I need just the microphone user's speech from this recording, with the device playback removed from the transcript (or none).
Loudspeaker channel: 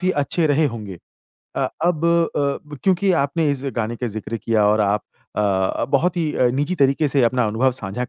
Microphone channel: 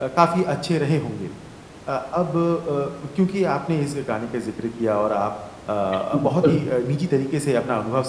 बिल्कुल।